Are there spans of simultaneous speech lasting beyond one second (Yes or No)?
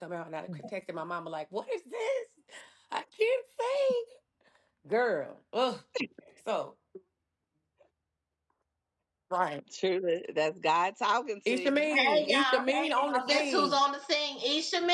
Yes